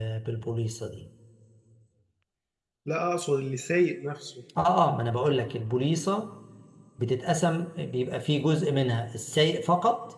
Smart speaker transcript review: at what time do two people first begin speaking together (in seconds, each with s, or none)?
none